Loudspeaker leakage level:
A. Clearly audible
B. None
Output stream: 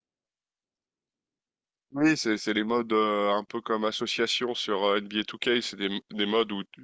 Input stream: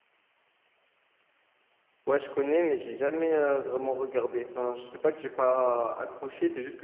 B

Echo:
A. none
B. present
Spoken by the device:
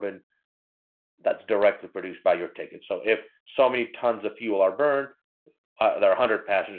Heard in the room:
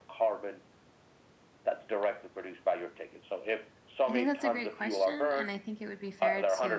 B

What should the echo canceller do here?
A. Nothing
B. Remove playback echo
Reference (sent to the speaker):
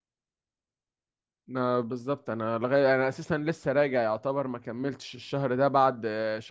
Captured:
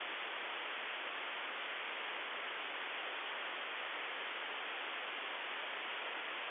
A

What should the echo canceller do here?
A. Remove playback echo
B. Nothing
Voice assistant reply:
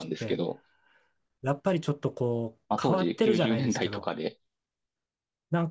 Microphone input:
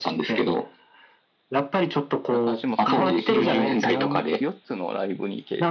A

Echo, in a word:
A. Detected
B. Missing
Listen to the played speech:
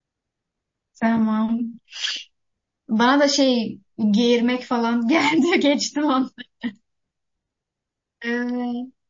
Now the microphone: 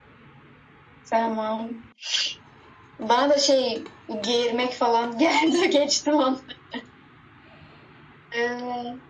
A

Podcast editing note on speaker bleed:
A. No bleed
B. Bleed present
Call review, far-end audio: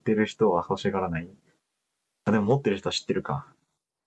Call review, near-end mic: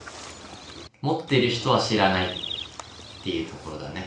A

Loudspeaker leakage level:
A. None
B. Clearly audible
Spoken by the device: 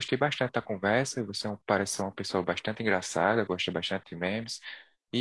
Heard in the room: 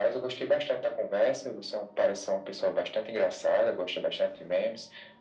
B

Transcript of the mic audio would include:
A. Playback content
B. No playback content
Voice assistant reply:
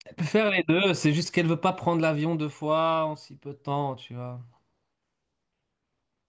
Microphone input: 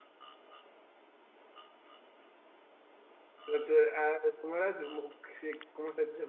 B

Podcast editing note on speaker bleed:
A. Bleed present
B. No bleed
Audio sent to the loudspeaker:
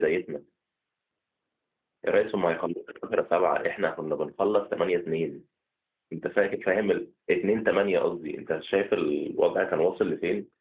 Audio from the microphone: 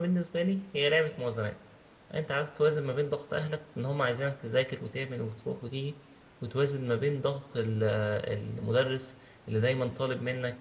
B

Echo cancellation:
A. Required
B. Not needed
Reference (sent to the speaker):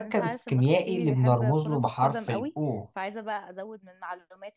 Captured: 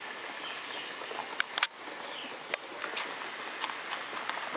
B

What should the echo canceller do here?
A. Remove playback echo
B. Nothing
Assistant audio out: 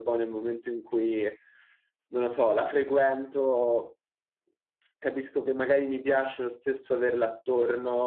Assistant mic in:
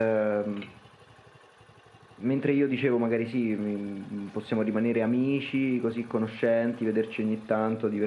B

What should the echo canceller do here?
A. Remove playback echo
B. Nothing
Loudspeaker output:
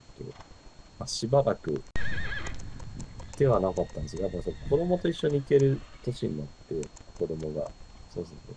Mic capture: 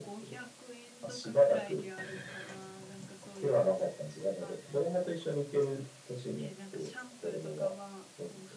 A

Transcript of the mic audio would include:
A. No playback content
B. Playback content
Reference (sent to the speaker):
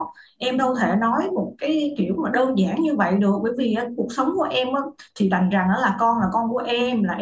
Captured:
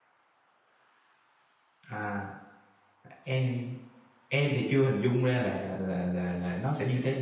A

